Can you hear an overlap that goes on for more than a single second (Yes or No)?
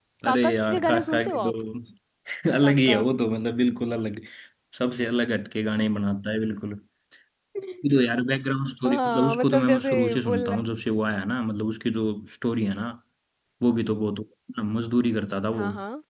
Yes